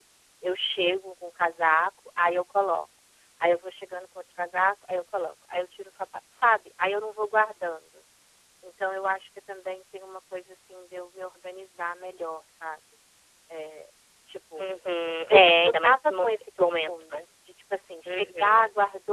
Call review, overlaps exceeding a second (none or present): present